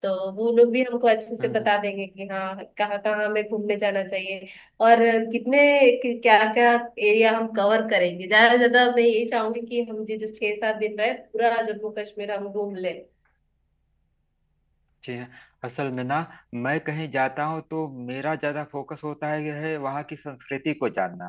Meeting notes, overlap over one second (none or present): none